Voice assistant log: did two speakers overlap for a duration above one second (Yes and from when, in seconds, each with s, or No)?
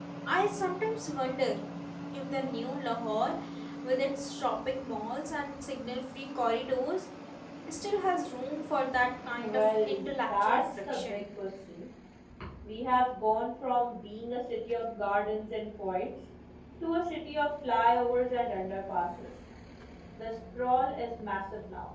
Yes, from 9.3 s